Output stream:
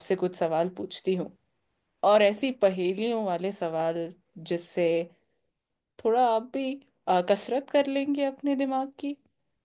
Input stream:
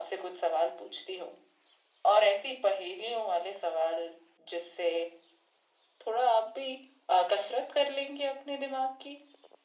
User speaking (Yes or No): No